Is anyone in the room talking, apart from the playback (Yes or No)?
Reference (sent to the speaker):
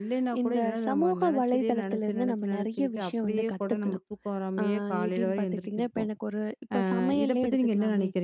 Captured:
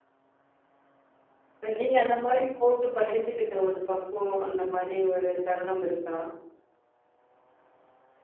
Yes